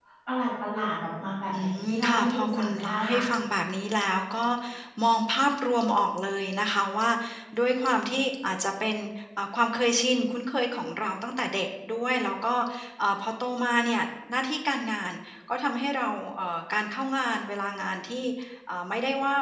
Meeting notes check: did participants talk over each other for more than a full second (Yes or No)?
Yes